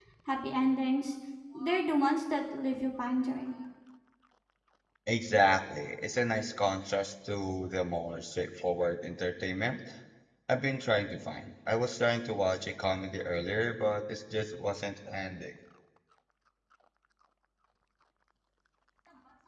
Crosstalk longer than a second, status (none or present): none